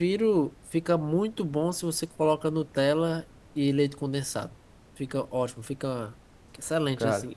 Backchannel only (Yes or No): Yes